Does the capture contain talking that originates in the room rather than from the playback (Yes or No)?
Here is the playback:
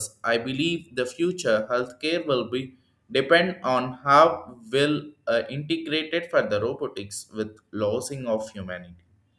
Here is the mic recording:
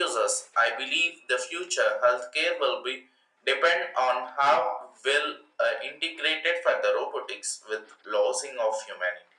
No